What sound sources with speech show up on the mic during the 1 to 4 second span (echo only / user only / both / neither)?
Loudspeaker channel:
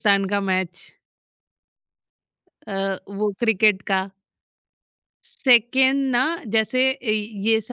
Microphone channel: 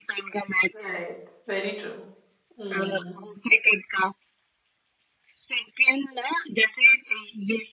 both